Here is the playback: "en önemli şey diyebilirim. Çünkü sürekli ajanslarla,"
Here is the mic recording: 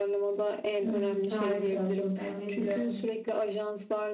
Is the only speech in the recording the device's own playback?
No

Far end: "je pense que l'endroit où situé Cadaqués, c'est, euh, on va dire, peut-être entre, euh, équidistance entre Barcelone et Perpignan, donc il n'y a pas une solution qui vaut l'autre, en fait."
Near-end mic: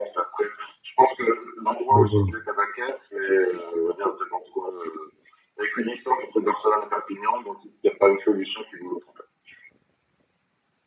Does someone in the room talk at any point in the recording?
Yes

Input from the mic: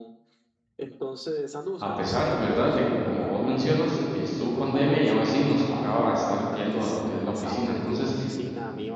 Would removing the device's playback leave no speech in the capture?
No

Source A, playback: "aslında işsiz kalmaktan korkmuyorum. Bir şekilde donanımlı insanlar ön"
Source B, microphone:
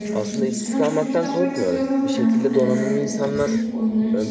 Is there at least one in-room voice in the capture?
Yes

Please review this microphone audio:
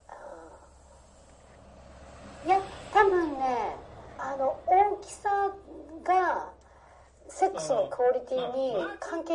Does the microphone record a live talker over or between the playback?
Yes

